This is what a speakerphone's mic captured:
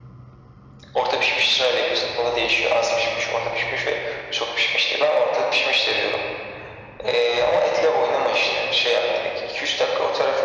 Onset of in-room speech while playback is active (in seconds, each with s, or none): none